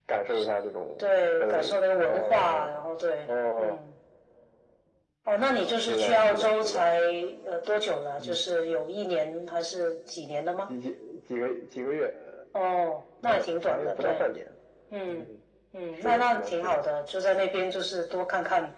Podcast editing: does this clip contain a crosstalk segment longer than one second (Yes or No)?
Yes